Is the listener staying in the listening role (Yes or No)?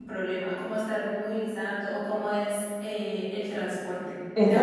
Yes